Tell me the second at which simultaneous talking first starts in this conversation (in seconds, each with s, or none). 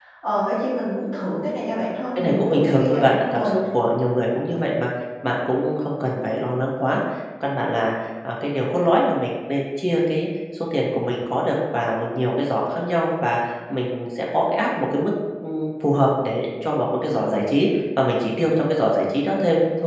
2.2 s